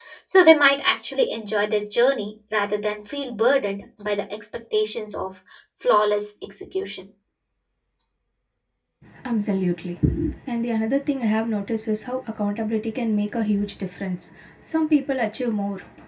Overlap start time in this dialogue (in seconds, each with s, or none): none